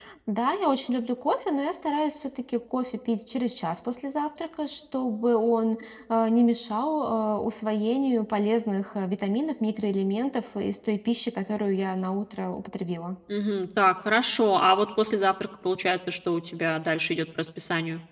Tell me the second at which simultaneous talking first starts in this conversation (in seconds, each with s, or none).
none